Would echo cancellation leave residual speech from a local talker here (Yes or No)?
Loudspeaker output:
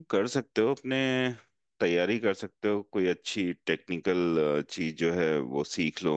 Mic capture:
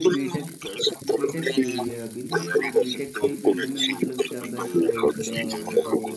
Yes